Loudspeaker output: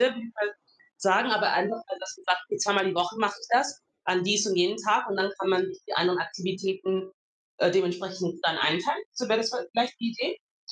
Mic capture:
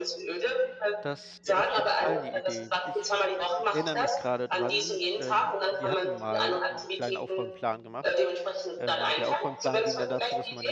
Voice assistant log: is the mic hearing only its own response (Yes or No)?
No